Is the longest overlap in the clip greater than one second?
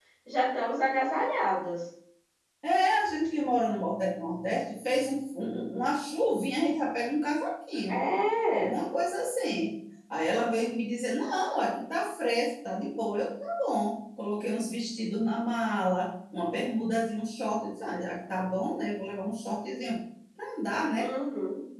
No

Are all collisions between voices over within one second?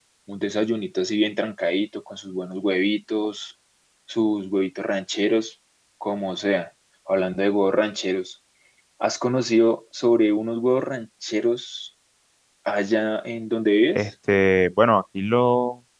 Yes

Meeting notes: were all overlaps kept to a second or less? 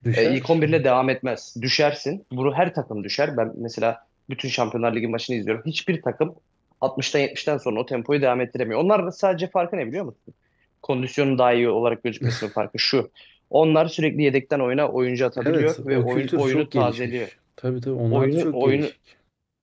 No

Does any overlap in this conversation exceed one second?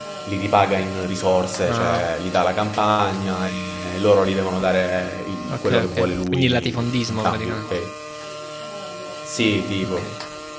Yes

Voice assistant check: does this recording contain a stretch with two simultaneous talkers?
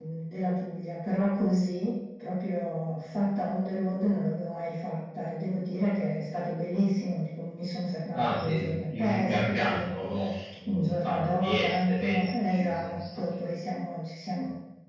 Yes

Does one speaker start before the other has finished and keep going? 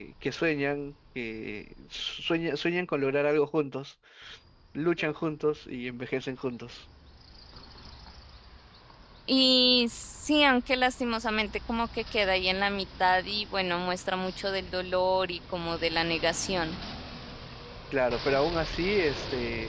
No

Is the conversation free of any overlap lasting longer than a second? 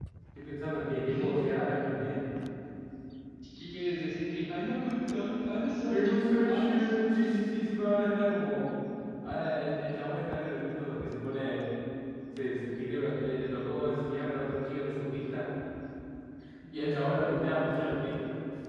No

